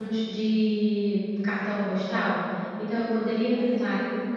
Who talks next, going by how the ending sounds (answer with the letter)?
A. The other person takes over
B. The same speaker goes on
B